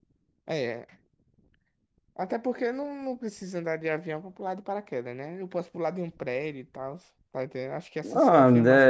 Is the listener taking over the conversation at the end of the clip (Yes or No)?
Yes